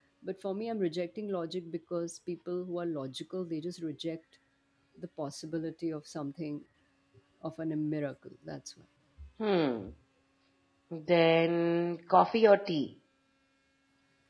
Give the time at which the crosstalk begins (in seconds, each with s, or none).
none